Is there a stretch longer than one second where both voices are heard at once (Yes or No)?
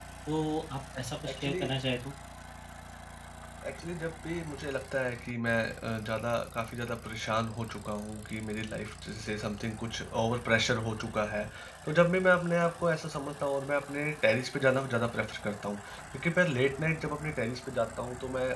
No